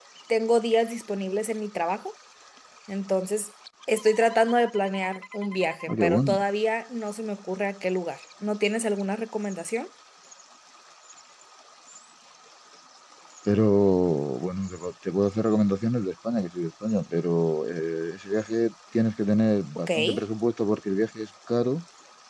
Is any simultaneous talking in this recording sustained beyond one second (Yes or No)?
No